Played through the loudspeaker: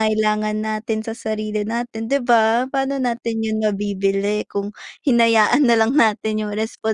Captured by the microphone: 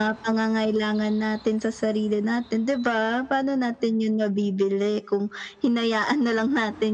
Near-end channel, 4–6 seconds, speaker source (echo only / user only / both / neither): echo only